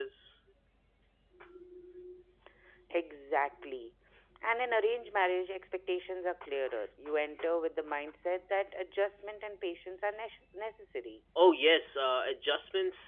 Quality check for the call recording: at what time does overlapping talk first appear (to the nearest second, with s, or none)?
none